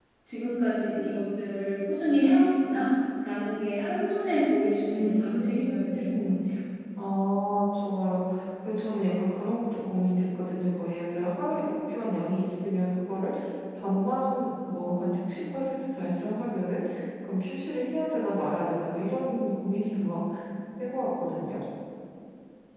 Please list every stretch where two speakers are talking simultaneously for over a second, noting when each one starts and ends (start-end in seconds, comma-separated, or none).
4.9-6.3